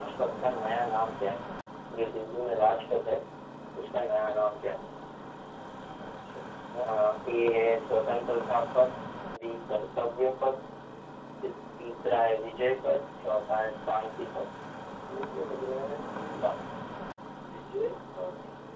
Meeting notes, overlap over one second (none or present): none